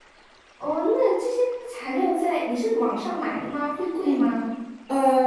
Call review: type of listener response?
taking over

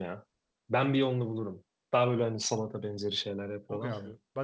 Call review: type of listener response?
taking over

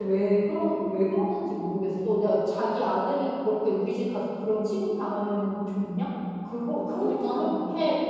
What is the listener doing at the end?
listening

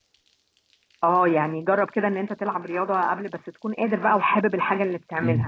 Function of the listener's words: taking over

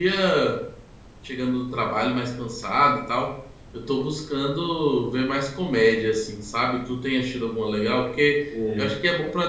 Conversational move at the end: listening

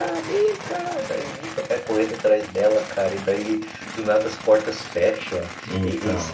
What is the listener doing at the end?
listening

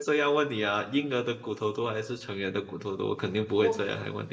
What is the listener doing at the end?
taking over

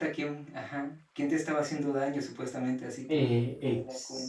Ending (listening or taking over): taking over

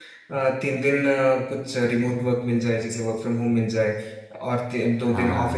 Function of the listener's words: listening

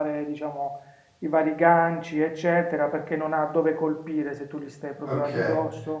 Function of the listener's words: taking over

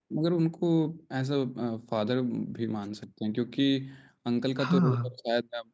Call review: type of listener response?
listening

